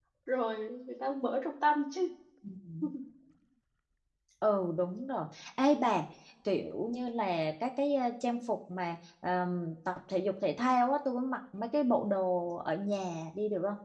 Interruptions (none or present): none